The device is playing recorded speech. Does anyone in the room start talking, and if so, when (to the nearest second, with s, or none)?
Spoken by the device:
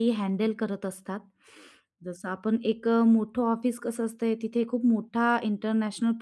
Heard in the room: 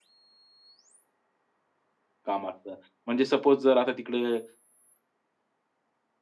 2 s